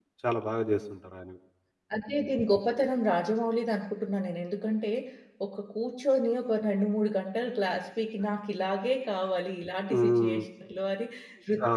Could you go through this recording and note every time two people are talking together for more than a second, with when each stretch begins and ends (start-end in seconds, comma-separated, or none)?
none